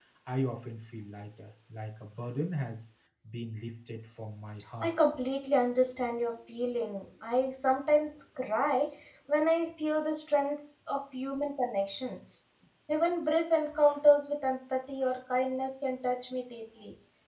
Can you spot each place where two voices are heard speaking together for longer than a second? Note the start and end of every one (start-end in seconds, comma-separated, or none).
none